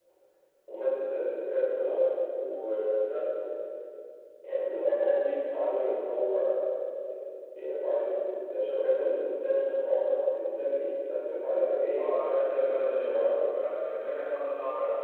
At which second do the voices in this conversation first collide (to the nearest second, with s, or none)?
12 s